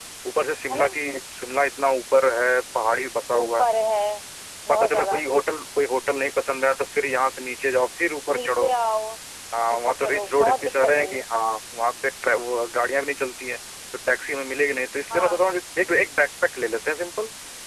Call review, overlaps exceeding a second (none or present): present